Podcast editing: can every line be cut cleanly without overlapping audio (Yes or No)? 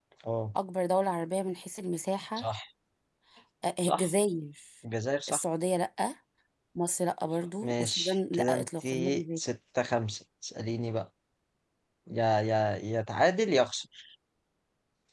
No